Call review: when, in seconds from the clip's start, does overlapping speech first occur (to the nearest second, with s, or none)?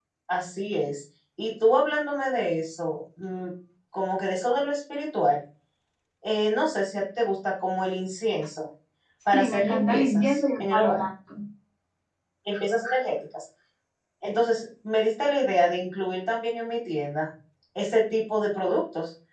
9 s